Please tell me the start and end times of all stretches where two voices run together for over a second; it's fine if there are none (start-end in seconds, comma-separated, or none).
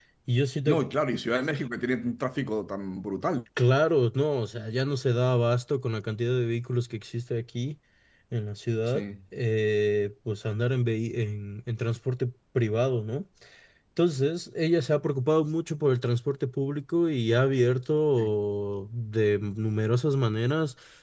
none